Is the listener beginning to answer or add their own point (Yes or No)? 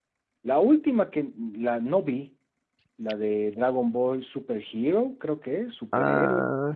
Yes